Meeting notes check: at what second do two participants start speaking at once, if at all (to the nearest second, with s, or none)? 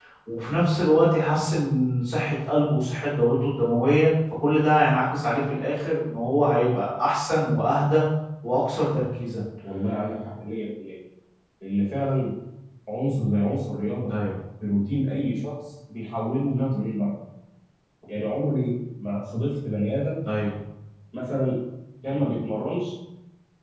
none